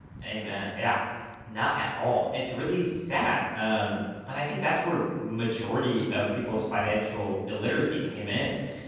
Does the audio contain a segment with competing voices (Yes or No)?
No